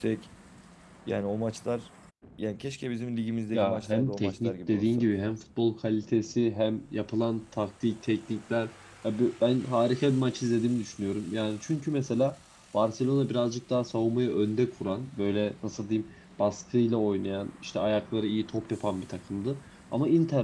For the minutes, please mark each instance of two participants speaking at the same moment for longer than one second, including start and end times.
3.5-5.0

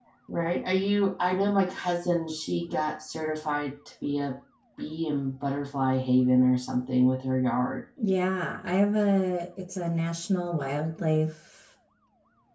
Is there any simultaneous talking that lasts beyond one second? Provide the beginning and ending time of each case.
none

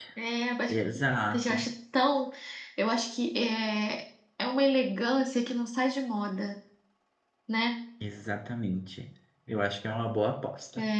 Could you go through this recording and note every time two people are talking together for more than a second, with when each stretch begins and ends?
none

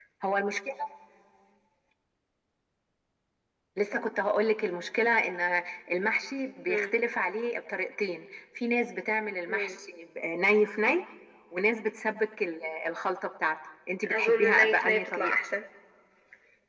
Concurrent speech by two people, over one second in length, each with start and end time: 14.1-15.4

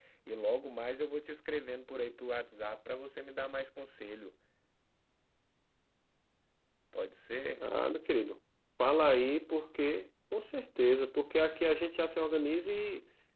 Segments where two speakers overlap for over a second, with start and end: none

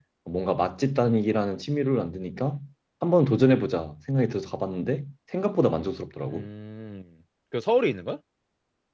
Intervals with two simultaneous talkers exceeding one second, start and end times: none

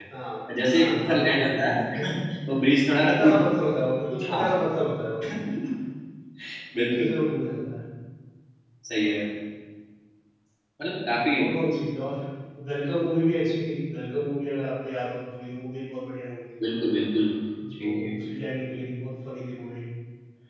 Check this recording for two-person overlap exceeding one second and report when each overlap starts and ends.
0.7-2.1

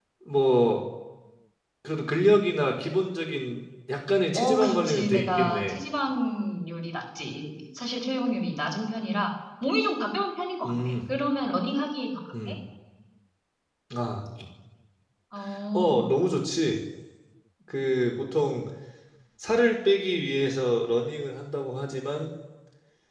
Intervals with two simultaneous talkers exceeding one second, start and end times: 4.3-5.8

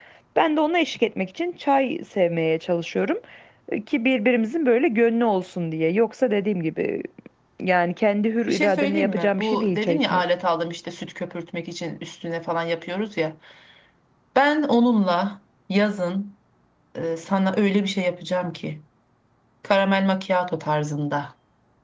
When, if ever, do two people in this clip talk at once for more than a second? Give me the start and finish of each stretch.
8.5-10.2

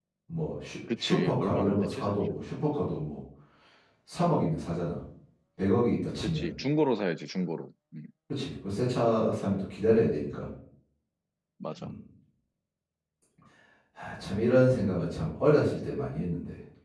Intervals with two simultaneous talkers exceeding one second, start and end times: 1.0-2.2

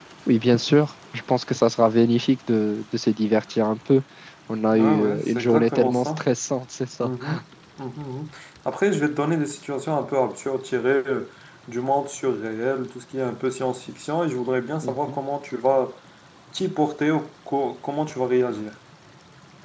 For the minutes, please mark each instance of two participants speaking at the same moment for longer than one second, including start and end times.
4.7-6.3

